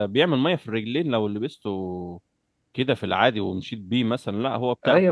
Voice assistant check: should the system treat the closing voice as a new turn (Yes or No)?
Yes